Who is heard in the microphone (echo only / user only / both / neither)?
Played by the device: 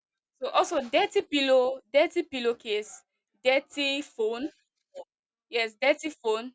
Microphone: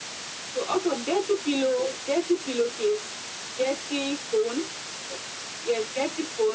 echo only